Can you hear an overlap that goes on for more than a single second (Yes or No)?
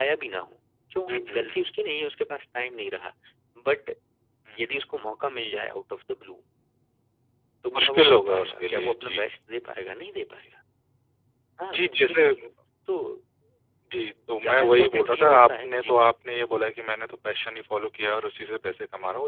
Yes